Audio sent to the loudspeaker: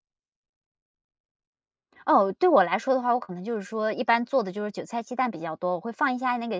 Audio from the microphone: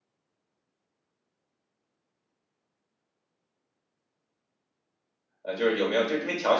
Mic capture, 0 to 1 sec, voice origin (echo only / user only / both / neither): neither